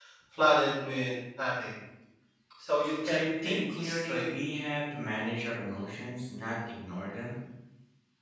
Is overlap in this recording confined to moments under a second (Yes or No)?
No